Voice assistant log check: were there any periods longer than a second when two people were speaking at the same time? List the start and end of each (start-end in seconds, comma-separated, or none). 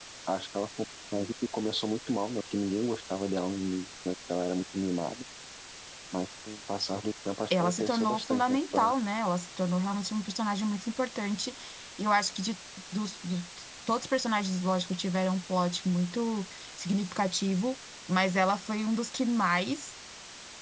7.6-8.9